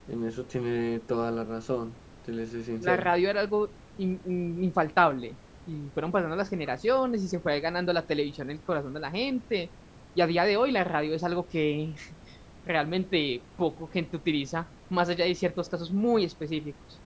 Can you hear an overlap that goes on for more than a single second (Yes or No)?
No